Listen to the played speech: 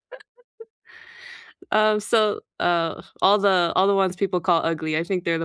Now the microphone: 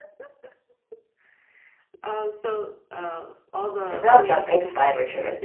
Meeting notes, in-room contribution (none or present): present